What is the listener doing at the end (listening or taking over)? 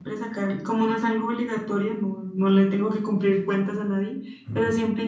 listening